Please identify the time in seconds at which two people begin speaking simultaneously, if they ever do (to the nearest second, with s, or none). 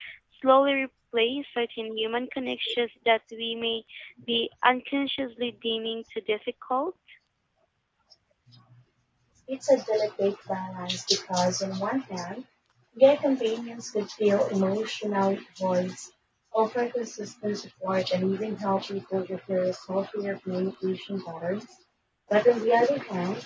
none